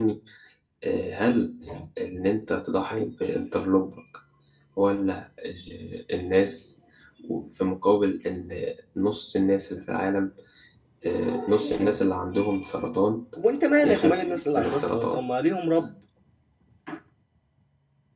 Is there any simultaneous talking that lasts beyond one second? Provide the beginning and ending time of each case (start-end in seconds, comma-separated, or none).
13.8-15.2